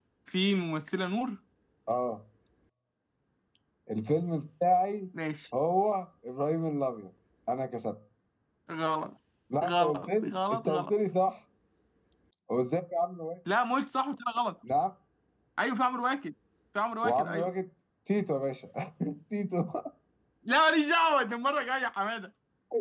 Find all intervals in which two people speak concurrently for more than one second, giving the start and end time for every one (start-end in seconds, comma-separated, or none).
9.7-10.9